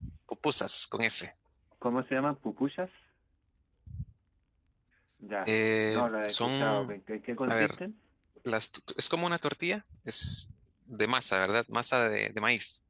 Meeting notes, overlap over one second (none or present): present